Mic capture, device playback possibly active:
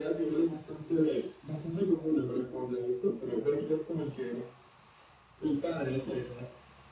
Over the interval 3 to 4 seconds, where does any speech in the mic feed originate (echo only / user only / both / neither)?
echo only